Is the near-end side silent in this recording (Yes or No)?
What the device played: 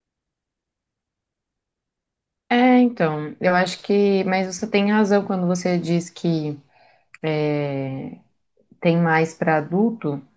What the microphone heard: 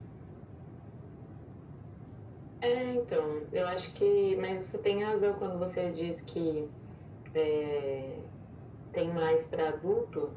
Yes